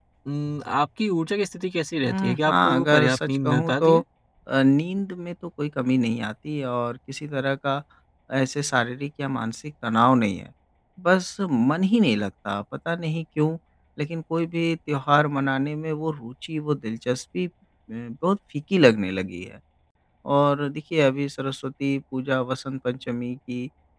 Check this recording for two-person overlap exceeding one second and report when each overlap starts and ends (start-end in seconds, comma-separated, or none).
2.0-4.0